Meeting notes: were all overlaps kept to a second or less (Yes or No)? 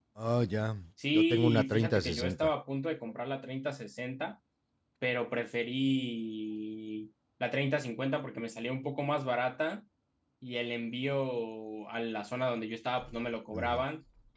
No